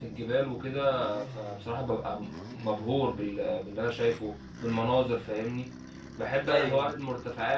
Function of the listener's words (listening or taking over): listening